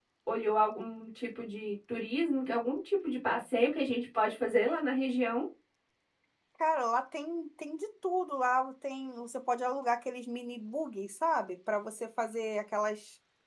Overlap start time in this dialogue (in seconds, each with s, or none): none